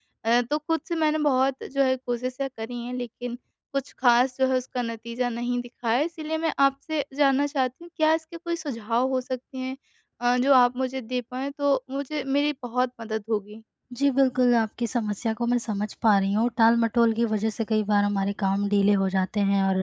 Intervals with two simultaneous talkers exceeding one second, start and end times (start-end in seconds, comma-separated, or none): none